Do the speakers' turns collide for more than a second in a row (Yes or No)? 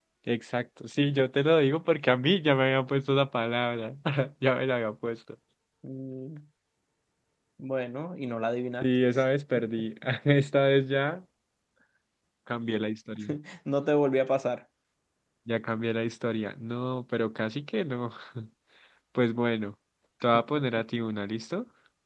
No